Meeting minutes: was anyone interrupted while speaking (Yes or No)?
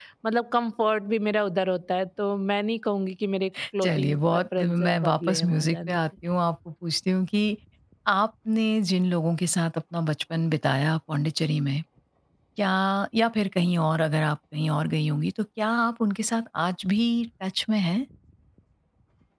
Yes